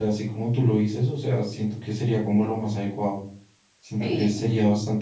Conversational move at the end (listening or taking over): listening